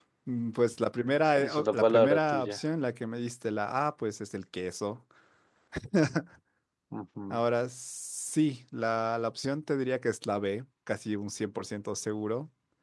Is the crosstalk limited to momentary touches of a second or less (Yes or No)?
No